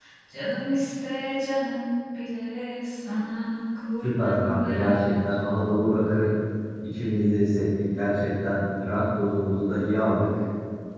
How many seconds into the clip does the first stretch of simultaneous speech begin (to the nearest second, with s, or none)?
4 s